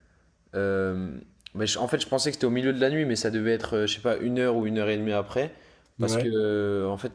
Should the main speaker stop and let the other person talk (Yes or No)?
No